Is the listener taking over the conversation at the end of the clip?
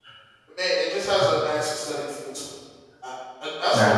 No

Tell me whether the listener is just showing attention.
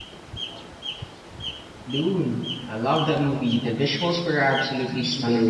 No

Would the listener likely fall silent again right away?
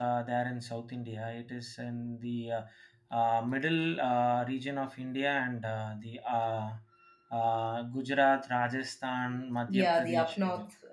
No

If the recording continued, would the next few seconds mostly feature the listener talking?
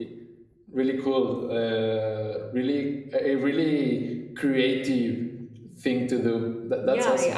Yes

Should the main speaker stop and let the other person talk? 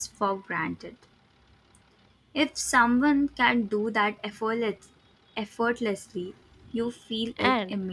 Yes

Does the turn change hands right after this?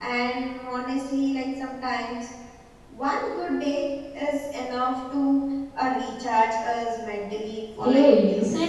Yes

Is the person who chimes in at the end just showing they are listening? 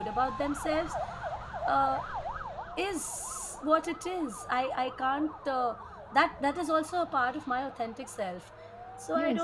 No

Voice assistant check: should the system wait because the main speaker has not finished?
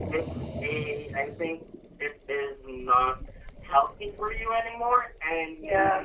Yes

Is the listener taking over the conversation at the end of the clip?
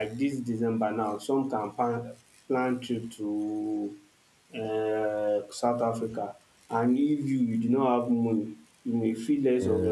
No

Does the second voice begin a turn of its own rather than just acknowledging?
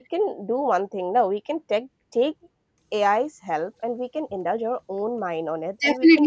Yes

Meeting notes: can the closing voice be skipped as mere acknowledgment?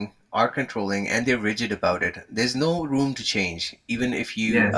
Yes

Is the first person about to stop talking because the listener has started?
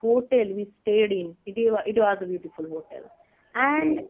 No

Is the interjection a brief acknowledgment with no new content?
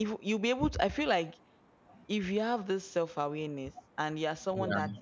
Yes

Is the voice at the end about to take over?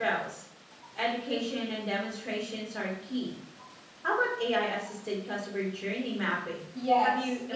Yes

